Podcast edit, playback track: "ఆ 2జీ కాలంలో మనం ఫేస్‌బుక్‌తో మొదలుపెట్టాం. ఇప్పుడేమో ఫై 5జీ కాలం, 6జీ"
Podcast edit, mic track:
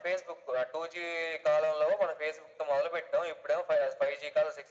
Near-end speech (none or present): none